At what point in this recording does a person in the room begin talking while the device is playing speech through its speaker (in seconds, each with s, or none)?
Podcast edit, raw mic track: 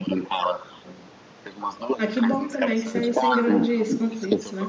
2.0 s